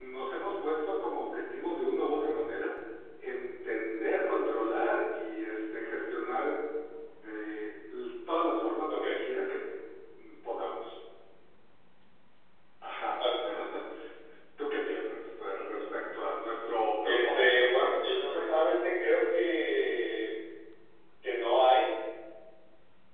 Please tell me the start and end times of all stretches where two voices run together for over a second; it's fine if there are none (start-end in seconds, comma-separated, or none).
17.0-18.7